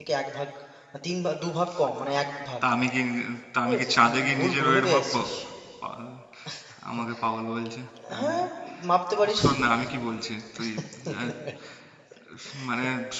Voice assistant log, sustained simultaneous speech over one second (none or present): present